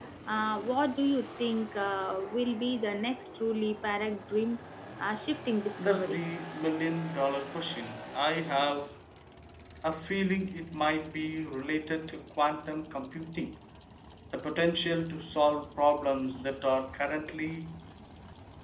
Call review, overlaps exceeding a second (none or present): none